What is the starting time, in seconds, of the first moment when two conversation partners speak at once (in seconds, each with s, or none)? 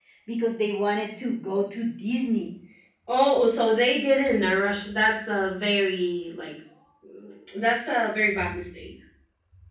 none